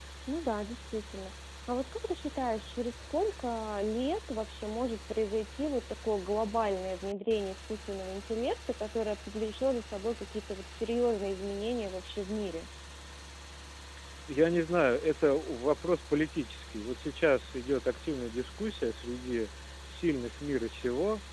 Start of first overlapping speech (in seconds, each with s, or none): none